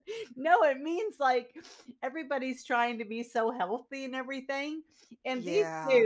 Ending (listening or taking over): listening